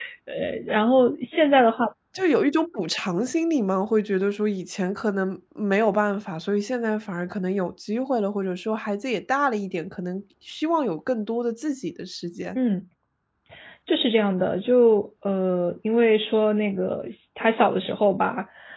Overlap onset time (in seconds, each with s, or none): none